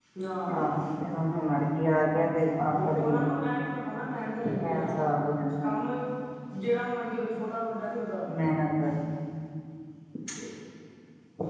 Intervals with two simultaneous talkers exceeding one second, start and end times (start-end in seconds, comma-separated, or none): none